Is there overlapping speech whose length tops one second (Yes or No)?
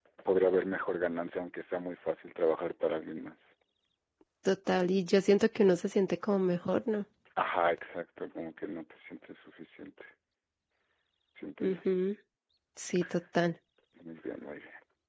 No